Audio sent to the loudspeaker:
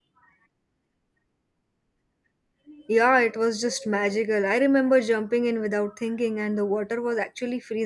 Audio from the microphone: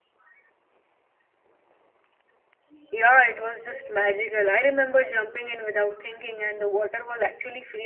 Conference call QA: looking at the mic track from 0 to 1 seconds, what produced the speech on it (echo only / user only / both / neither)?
neither